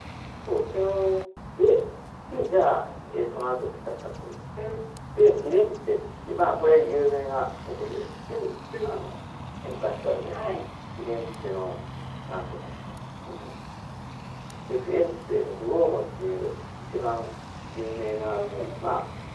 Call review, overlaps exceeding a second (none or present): none